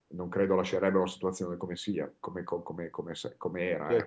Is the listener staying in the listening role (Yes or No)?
No